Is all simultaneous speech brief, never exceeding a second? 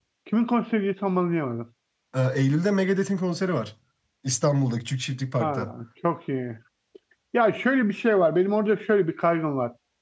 Yes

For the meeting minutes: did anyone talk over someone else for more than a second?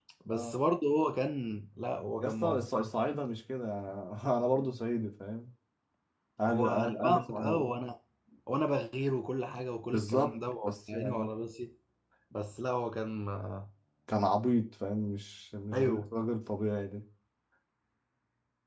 Yes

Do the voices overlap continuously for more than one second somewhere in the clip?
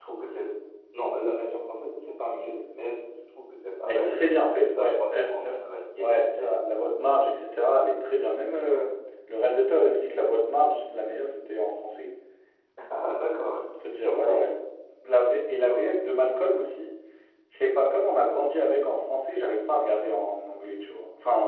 Yes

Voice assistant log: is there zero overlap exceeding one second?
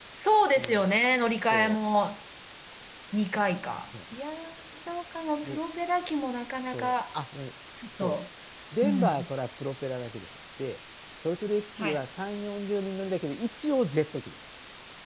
Yes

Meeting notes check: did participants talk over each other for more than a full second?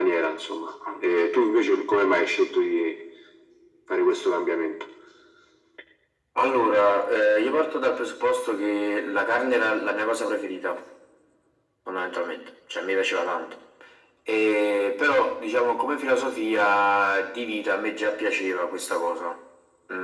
No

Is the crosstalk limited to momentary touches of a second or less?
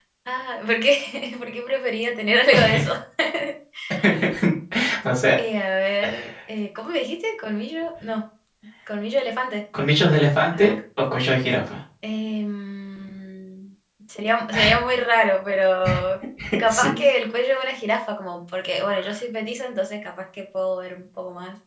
Yes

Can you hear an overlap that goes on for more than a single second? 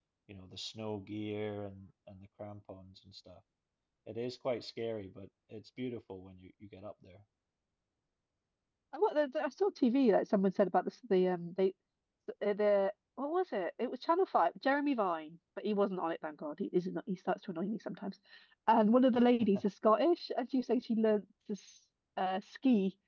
No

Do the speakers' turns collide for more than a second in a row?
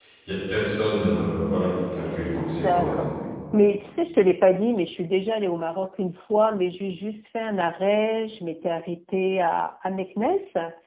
No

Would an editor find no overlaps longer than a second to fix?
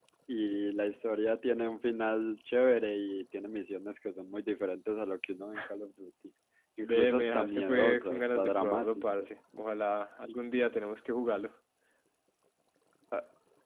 No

